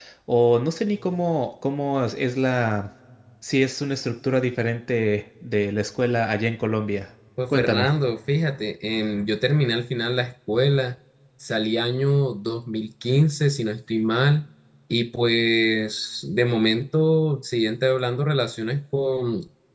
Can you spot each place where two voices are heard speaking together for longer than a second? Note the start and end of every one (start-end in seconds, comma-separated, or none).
none